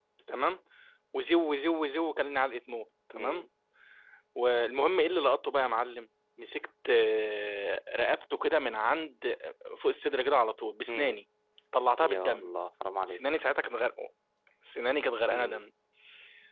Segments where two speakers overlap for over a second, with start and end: none

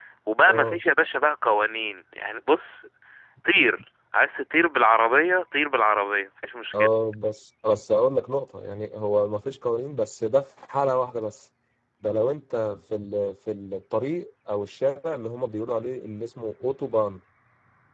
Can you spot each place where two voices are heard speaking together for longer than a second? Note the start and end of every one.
none

